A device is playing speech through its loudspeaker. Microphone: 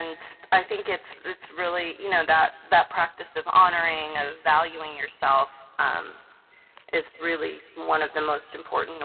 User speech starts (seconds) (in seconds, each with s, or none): none